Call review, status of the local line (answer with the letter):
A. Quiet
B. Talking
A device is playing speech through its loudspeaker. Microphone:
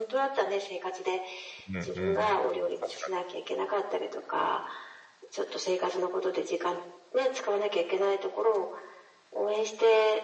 B